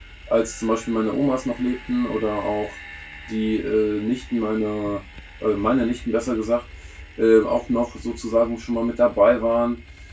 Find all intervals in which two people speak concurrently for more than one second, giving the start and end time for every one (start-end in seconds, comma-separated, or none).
none